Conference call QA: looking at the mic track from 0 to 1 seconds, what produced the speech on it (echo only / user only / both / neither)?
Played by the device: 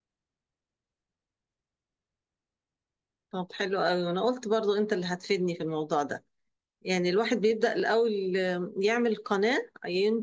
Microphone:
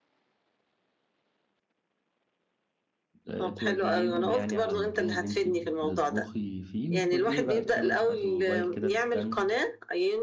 neither